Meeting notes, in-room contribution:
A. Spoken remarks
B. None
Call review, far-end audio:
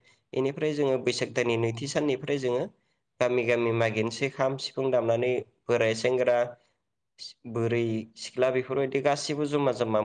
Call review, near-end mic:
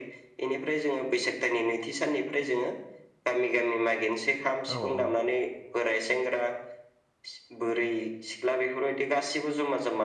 A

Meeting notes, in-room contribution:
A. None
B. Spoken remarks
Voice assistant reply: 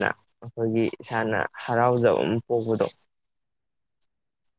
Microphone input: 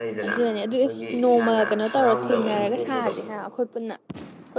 B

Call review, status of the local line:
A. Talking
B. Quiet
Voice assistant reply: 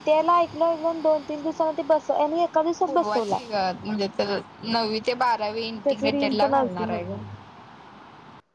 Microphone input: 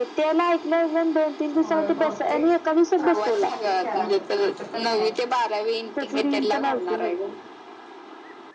A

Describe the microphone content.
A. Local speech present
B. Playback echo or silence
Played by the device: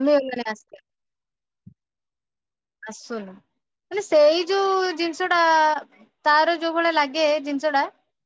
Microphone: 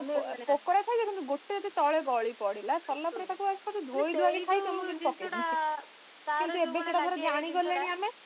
A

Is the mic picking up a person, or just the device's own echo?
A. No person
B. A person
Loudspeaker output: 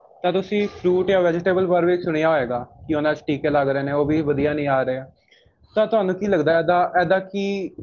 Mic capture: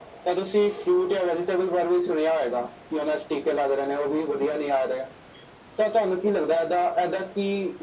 A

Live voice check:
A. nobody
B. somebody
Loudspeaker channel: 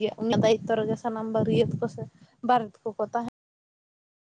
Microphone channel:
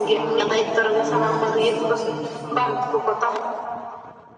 B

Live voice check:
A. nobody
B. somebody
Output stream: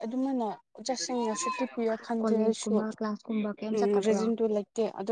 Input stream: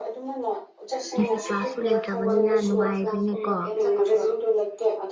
B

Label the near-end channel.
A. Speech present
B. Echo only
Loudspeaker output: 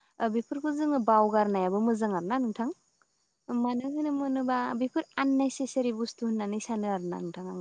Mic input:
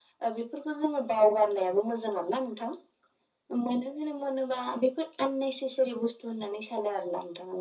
B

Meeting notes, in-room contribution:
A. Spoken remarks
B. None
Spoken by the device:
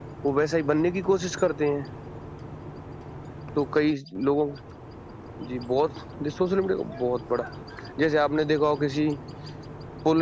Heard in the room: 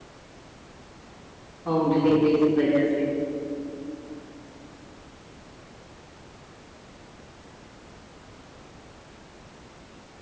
A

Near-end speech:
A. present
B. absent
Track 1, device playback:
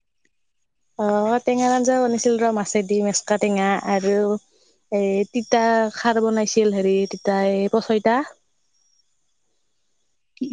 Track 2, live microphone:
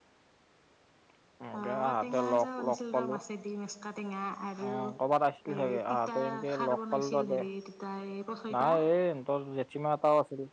A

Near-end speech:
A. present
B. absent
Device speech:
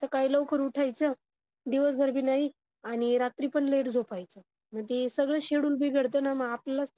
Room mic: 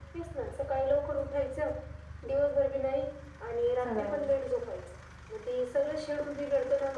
A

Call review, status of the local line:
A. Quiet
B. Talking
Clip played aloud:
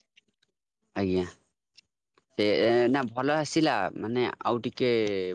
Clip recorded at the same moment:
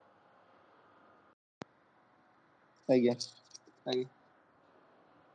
B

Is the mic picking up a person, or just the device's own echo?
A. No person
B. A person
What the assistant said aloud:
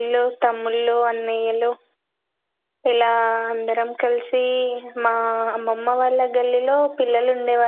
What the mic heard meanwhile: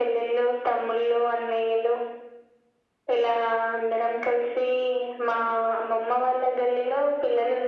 A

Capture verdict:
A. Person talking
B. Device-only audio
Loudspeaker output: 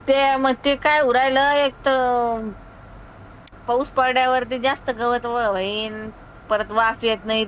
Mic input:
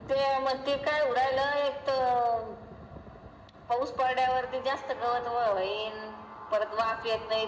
B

